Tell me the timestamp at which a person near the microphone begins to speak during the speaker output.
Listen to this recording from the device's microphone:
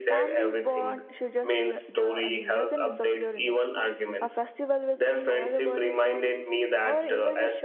none

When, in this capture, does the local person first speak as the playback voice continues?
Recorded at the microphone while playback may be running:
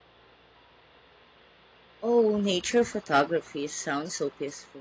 2 s

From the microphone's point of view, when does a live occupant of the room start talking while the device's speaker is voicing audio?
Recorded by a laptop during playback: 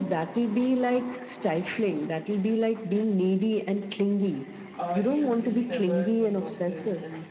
5 s

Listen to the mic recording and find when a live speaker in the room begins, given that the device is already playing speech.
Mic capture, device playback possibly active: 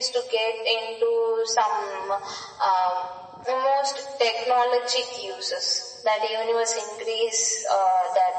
none

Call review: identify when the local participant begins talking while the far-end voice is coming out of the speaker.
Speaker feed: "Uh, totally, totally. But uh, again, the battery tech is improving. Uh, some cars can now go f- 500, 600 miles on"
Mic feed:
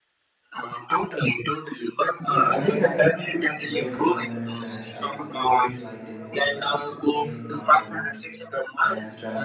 2 s

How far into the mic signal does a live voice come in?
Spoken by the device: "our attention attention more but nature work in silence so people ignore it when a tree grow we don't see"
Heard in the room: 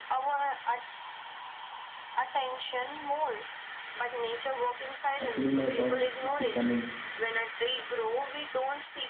5 s

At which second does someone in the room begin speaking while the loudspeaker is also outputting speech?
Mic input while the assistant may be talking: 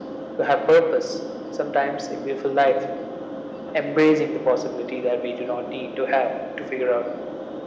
none

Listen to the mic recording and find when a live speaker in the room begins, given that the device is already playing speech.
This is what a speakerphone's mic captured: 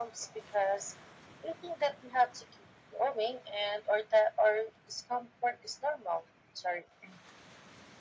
none

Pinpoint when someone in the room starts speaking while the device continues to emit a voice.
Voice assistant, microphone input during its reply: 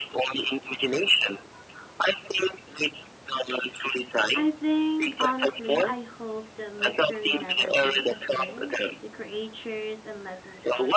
4 s

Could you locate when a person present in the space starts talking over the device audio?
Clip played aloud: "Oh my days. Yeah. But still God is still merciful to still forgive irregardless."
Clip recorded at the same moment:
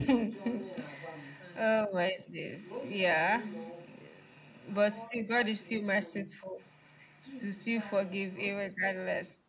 none

